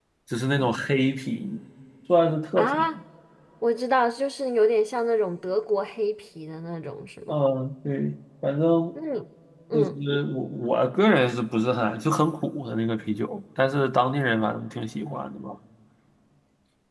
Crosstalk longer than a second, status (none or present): none